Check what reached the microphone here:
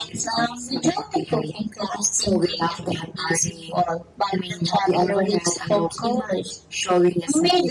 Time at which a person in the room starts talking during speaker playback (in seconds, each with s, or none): none